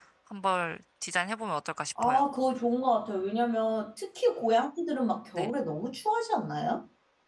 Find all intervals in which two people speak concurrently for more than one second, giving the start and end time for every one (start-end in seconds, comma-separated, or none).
none